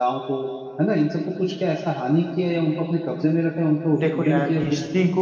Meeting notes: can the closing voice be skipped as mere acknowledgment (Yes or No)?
No